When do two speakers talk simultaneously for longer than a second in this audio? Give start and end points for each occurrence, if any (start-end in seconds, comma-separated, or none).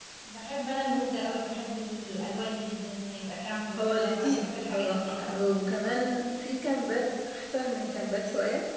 3.8-5.4